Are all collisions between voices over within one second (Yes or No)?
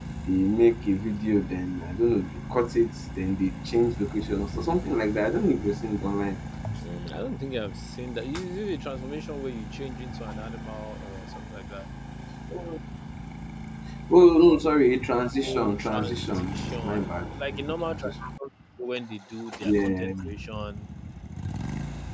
No